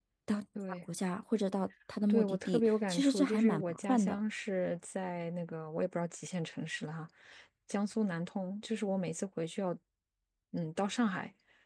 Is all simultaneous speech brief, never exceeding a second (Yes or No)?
No